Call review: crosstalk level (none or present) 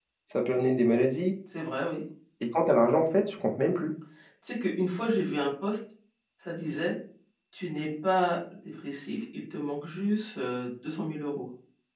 none